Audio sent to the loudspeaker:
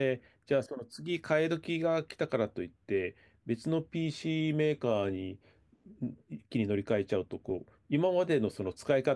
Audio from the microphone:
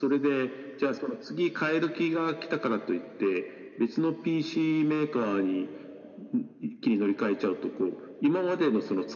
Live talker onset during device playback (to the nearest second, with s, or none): none